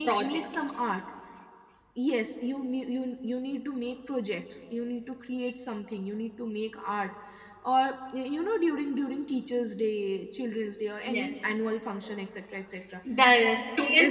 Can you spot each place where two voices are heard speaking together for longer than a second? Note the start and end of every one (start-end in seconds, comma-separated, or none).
none